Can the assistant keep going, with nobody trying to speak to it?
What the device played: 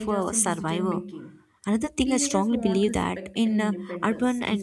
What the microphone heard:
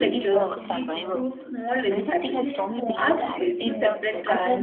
No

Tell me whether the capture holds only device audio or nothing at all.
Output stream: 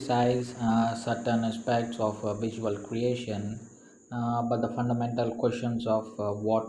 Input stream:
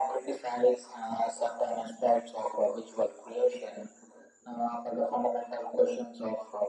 Yes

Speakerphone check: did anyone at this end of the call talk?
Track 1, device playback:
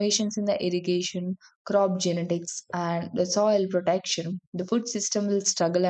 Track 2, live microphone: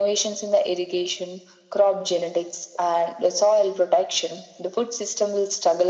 No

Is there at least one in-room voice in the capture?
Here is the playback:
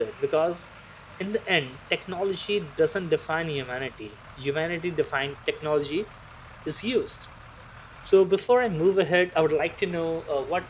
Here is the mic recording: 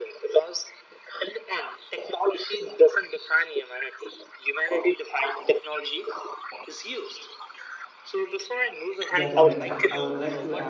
Yes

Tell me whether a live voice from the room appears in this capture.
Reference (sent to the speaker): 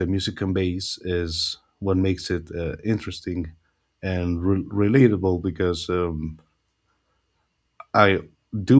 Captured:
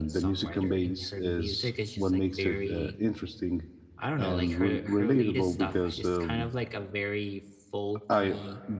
Yes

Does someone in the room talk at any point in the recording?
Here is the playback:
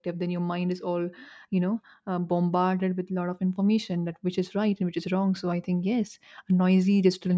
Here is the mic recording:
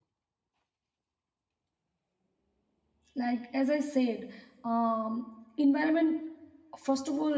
Yes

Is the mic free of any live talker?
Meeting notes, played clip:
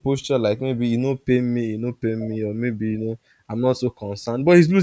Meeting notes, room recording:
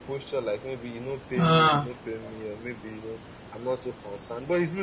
No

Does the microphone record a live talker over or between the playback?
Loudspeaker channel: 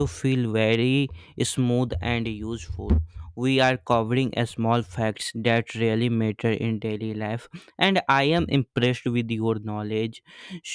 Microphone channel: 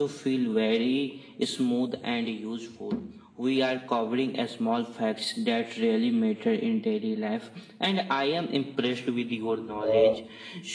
Yes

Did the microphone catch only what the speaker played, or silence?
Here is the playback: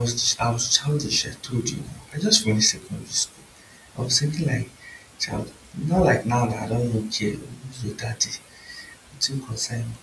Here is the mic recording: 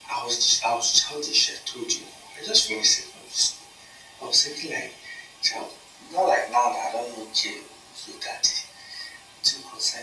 Yes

